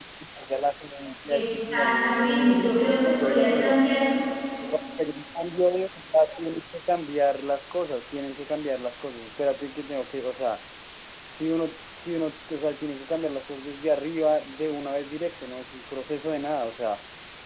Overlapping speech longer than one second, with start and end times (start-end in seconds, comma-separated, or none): 1.3-3.8